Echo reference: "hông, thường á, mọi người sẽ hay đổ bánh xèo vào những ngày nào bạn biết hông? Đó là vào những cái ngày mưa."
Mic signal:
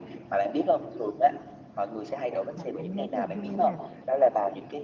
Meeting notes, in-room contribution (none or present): present